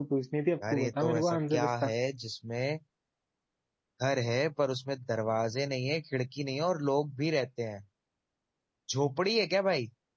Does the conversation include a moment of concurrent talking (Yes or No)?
Yes